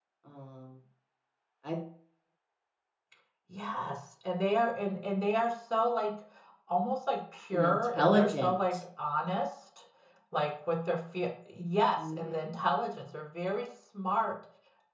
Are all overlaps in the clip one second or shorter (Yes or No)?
No